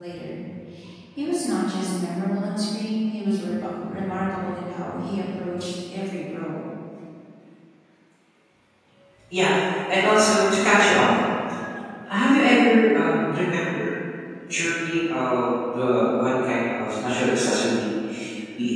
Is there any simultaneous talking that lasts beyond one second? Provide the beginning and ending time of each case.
none

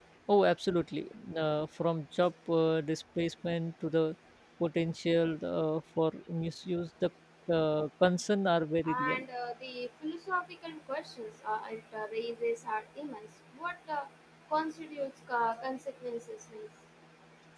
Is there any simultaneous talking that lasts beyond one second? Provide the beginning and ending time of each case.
none

